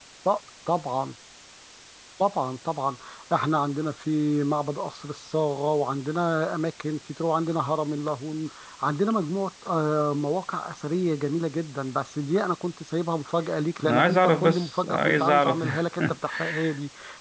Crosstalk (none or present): present